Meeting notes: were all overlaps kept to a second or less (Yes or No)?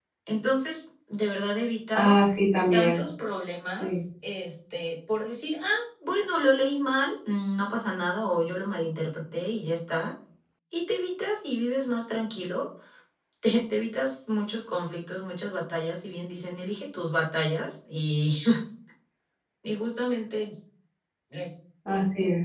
Yes